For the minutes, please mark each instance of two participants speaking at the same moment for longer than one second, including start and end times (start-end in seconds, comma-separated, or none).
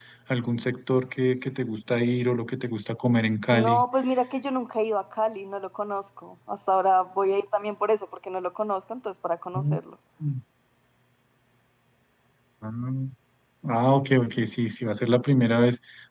none